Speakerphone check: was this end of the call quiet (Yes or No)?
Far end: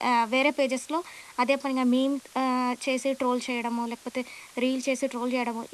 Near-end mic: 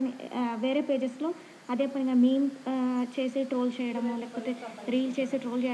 No